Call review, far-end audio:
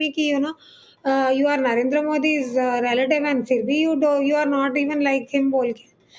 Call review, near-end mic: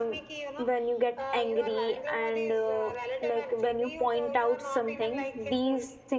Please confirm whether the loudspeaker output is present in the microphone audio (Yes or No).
Yes